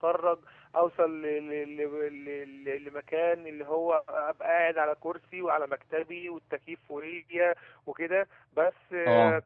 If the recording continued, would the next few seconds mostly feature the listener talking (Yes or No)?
No